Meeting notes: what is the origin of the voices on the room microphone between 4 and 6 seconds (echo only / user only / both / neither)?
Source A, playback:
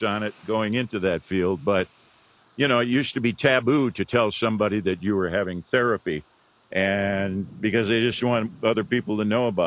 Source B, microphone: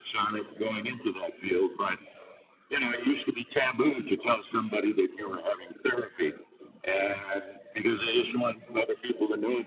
echo only